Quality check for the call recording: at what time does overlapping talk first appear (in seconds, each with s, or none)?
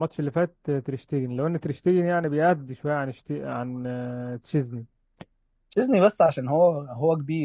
none